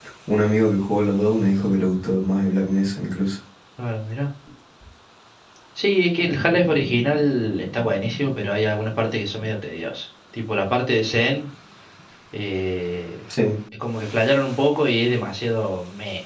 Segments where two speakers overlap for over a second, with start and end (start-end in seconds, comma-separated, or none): none